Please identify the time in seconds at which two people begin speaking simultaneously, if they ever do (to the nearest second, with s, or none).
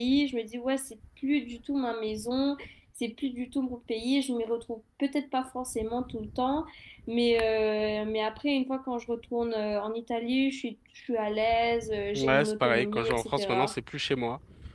12 s